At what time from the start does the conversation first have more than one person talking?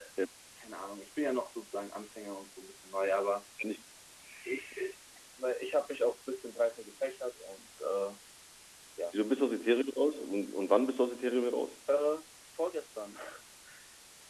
none

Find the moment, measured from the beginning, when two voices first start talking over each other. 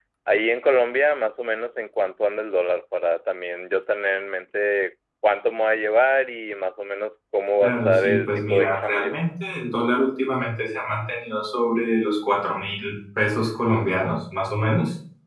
8 s

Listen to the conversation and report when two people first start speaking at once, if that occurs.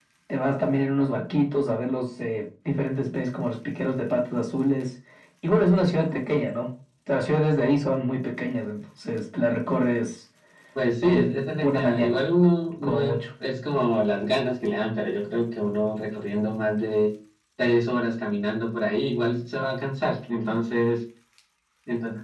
11 s

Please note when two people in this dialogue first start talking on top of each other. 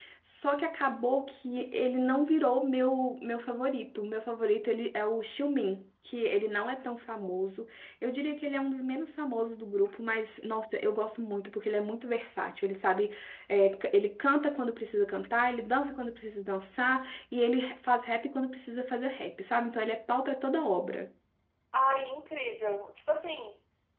none

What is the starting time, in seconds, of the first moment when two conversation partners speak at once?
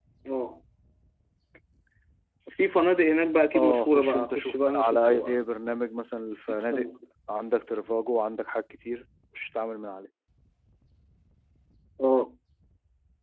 4 s

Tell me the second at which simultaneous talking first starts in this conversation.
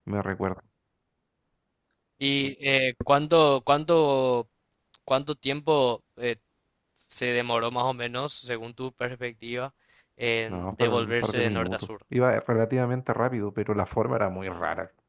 10 s

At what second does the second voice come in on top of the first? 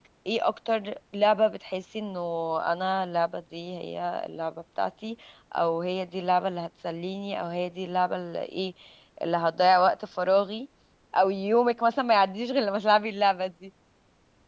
none

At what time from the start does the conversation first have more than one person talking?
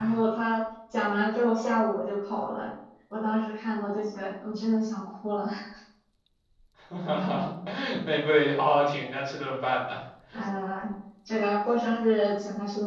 none

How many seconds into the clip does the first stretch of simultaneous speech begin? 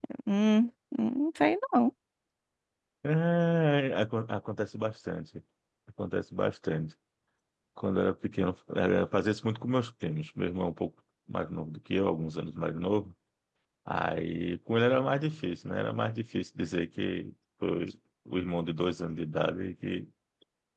none

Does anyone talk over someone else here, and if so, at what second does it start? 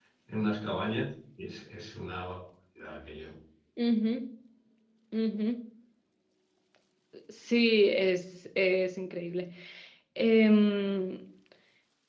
none

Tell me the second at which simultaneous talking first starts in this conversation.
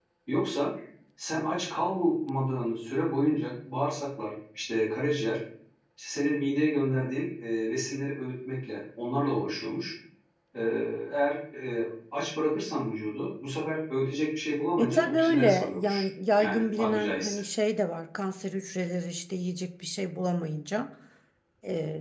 15 s

